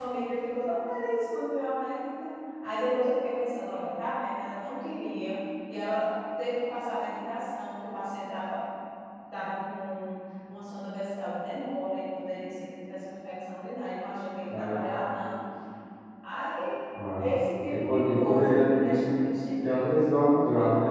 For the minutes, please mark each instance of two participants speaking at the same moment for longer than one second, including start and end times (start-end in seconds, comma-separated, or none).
17.7-19.1